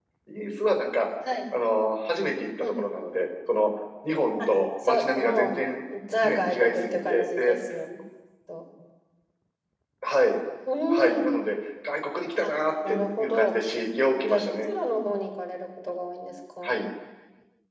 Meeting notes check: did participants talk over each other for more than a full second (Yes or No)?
Yes